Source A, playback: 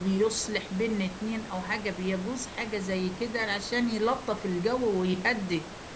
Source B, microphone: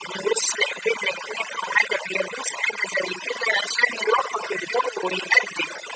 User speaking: No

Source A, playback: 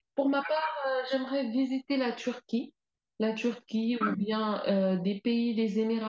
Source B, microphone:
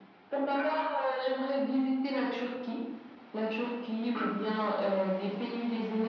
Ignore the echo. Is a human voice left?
No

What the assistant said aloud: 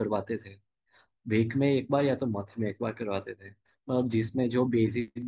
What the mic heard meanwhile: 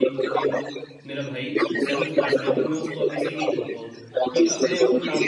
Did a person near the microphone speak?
Yes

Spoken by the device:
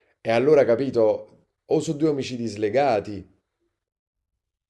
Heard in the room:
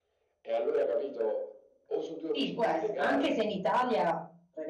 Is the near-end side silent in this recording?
No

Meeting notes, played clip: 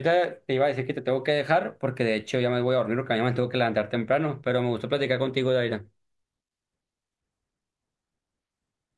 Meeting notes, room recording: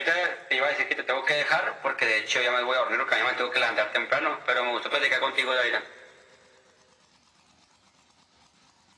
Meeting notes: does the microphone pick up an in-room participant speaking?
No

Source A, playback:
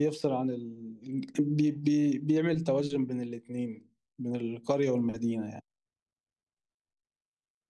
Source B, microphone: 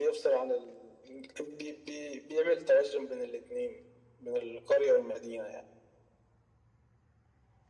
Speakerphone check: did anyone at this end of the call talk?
No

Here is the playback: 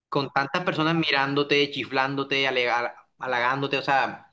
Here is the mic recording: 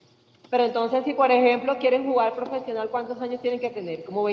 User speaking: Yes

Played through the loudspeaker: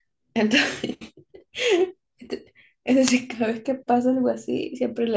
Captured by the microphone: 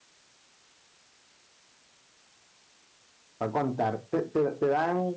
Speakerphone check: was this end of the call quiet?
No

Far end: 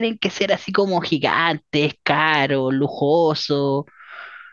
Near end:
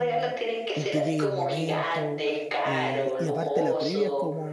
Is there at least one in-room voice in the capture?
Yes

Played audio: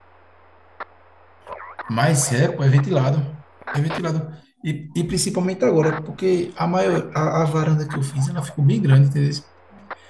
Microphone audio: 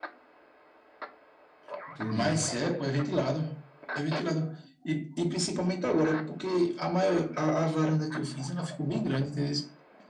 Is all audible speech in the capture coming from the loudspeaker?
No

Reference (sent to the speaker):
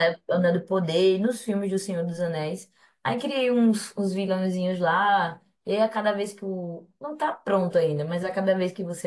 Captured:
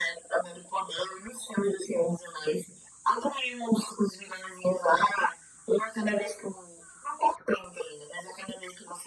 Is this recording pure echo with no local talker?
Yes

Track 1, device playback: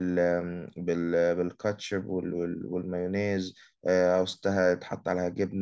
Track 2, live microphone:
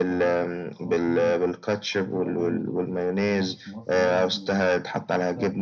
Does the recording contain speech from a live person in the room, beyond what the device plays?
Yes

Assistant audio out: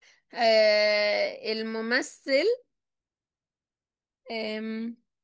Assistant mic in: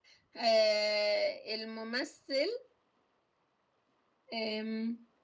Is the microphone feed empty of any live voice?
Yes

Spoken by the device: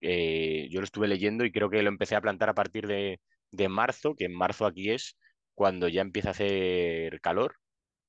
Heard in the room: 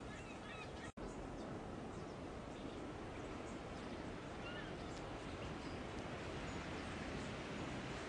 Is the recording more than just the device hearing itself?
No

